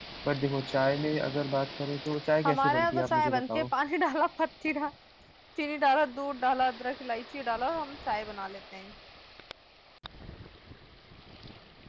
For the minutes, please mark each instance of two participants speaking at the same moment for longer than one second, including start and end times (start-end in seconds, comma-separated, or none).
2.5-3.7